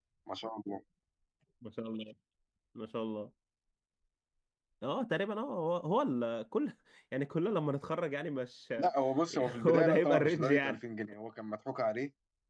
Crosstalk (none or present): present